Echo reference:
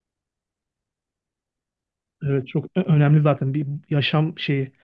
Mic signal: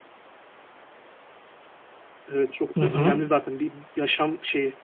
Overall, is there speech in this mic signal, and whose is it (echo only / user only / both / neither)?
both